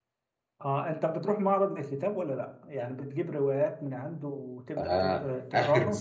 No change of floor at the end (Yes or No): No